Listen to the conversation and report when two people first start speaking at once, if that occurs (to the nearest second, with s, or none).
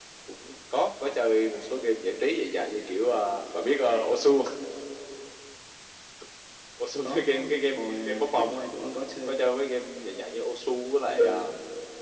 7 s